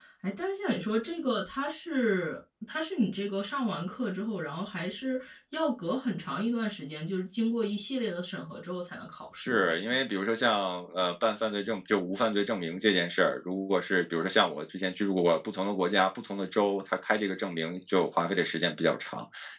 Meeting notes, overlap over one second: none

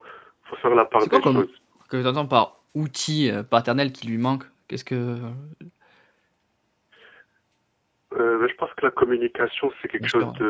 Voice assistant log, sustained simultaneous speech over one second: none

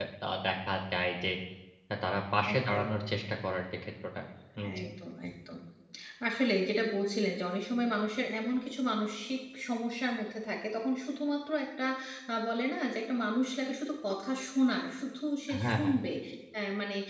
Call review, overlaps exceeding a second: none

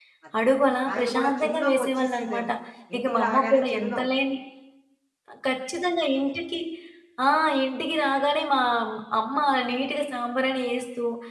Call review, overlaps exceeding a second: present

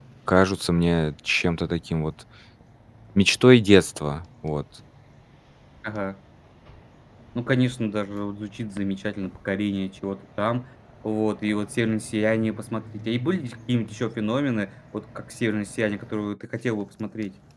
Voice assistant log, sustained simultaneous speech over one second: none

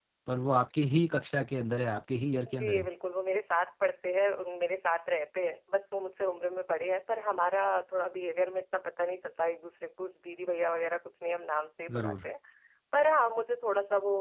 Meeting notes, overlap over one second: none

